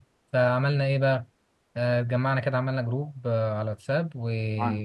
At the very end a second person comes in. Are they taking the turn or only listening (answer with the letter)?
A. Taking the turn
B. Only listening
B